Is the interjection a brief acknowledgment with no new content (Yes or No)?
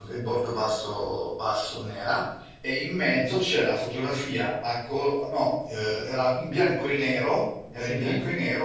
Yes